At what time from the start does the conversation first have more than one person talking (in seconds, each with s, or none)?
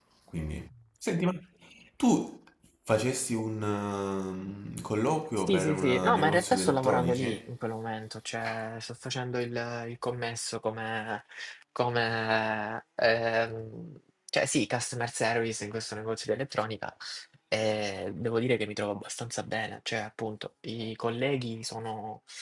5.4 s